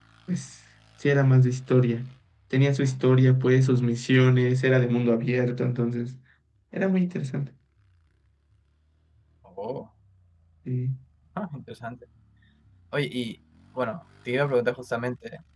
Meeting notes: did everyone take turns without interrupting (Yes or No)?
Yes